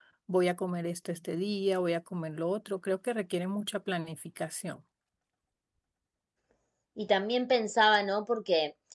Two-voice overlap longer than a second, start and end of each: none

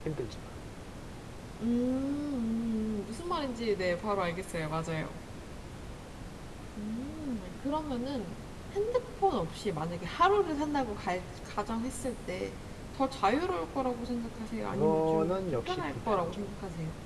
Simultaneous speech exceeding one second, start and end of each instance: 14.6-16.5

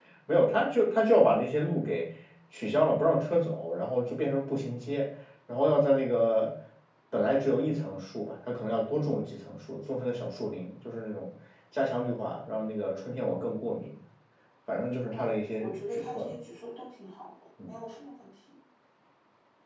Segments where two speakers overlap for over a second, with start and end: 15.1-16.3

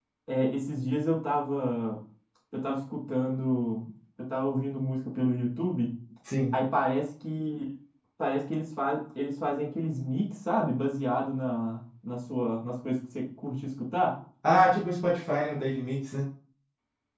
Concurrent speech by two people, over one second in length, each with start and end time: none

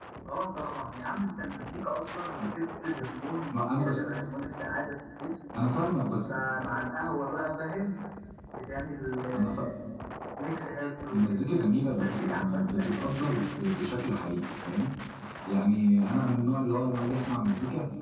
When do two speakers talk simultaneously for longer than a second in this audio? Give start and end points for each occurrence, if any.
11.1-13.3

